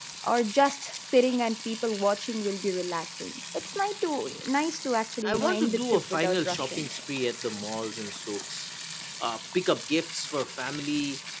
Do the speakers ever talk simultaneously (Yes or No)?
Yes